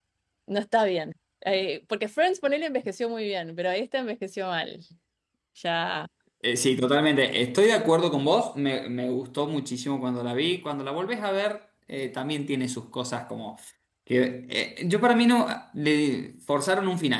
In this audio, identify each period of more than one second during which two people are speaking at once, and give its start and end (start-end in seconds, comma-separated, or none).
none